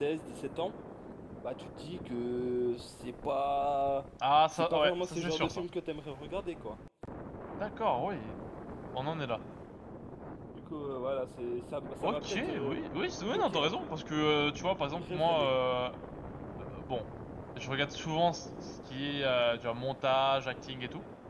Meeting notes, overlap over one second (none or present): present